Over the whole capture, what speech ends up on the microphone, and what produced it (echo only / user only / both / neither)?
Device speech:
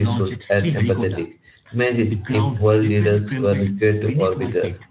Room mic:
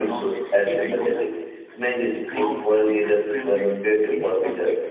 echo only